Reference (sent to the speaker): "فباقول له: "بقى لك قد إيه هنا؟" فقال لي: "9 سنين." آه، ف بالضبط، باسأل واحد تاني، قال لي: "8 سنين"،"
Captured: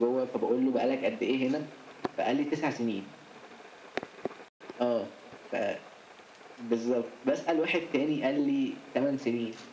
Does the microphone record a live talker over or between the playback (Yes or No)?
No